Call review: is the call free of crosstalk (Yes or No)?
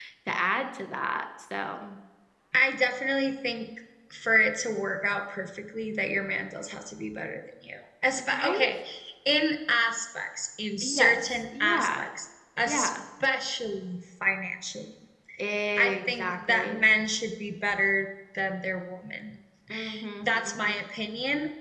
No